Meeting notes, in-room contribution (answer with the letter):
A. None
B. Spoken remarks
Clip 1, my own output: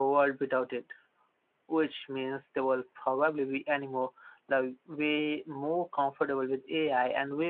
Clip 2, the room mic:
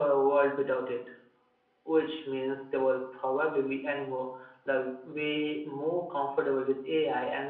A